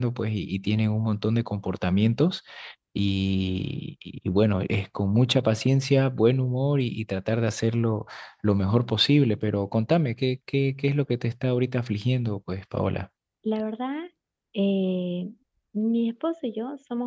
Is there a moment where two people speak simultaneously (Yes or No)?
No